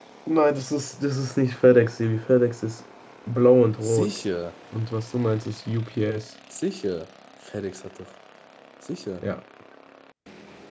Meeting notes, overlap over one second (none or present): none